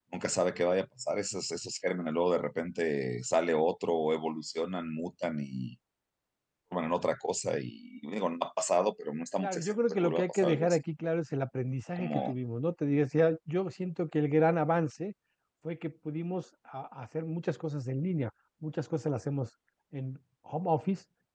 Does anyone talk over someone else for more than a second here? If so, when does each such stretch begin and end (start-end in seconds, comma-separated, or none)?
9.4-10.8